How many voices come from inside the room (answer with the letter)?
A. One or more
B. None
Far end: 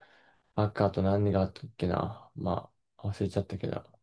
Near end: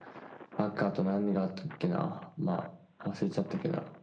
B